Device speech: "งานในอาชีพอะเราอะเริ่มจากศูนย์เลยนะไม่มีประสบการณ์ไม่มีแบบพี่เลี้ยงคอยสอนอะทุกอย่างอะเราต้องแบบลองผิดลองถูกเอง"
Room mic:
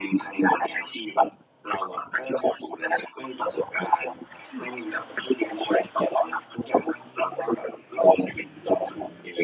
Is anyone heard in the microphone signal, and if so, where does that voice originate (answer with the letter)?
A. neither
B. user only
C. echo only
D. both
D